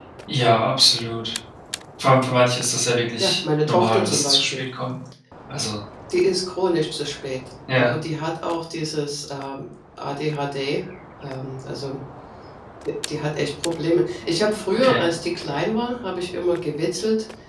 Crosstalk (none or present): present